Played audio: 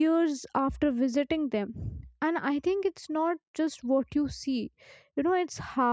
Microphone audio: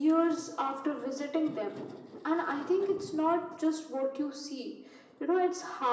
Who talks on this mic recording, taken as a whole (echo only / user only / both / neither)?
echo only